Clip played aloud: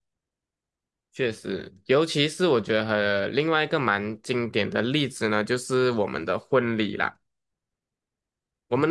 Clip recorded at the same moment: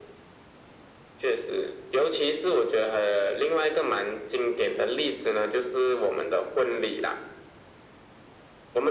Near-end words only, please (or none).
none